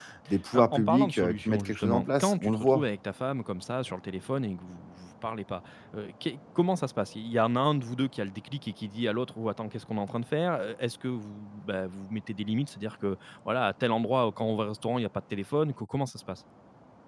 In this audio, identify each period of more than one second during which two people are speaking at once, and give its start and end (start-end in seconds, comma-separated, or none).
0.5-2.9